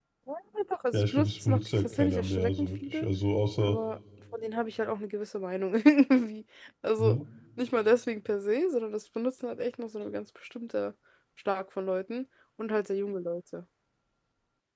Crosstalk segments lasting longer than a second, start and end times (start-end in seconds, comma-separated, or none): 0.9-3.1